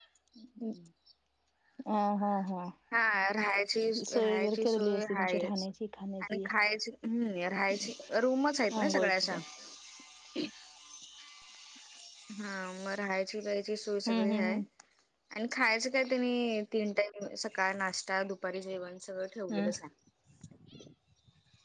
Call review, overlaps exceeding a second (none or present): present